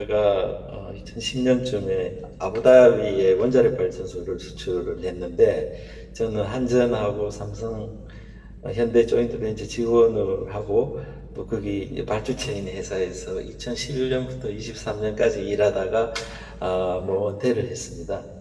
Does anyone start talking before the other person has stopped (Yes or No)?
No